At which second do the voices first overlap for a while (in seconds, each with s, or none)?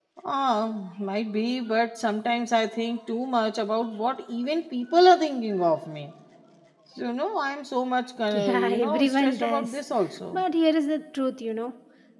8.3 s